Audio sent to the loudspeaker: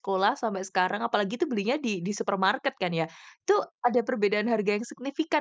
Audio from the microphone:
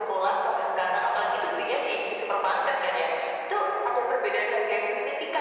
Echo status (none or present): present